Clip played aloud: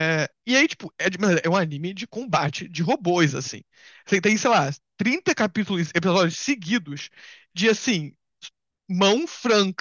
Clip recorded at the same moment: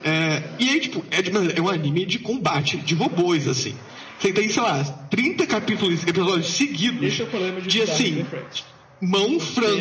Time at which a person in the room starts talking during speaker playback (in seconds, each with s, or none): 6.2 s